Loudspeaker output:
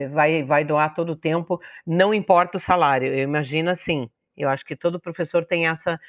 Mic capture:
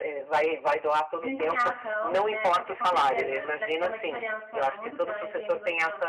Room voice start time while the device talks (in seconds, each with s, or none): 1.1 s